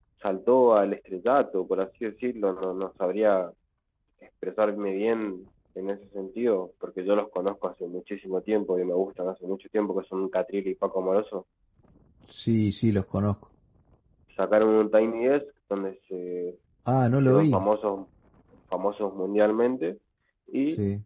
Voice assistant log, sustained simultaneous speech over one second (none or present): none